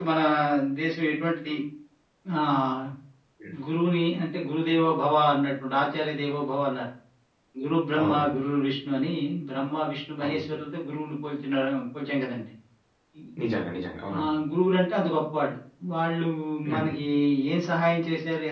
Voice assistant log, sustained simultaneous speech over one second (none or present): none